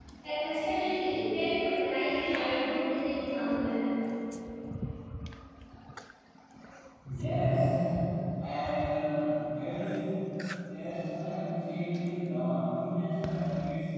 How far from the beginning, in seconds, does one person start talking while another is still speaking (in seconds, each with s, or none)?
none